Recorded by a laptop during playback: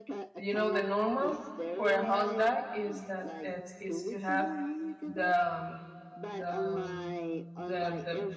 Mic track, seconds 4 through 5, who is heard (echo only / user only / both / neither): both